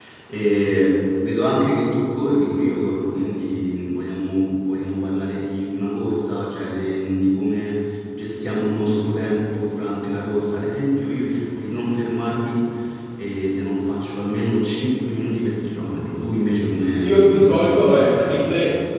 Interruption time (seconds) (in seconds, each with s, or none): 17.0 s